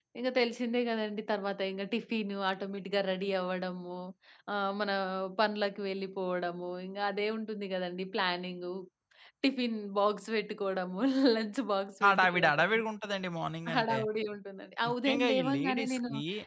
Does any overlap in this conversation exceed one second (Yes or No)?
Yes